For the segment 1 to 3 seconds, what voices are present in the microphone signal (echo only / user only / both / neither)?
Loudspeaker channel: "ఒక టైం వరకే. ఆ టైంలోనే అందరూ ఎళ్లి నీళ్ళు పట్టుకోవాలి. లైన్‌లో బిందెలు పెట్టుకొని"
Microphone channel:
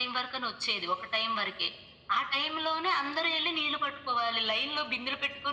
echo only